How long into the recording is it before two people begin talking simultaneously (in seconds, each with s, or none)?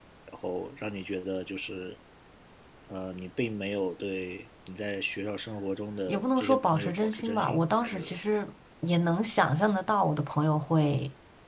6.1 s